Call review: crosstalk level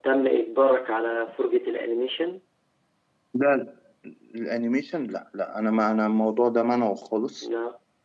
none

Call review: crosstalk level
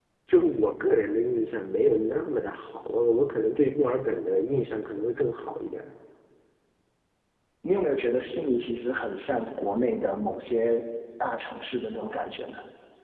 none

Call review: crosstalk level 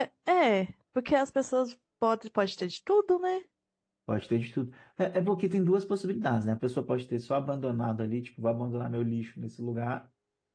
none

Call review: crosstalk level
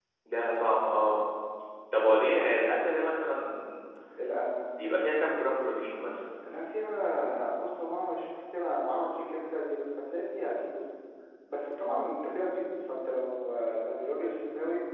none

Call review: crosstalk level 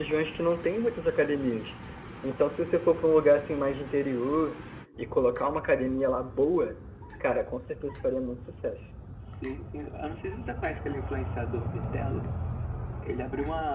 none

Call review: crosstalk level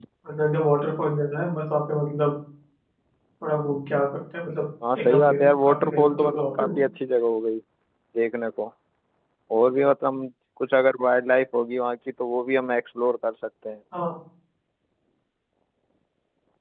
present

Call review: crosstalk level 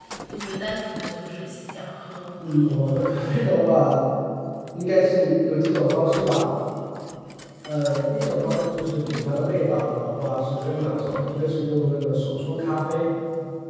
none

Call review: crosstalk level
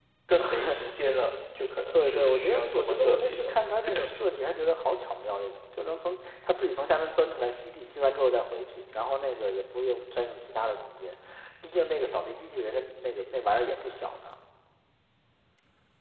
present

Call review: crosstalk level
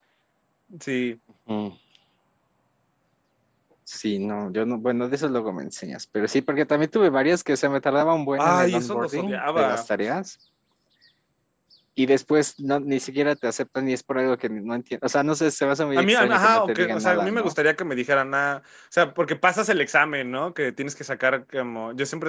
present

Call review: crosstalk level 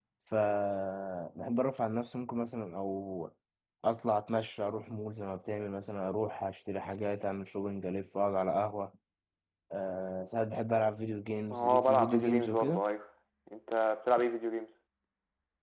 present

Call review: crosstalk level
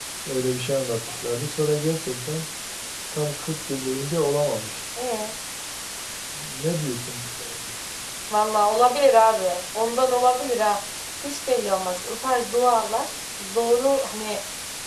none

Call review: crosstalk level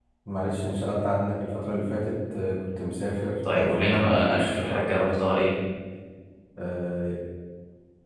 present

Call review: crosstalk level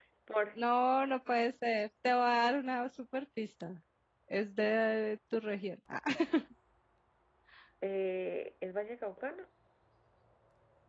none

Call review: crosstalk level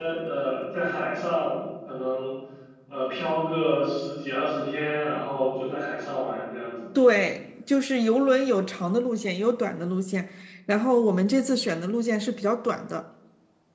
none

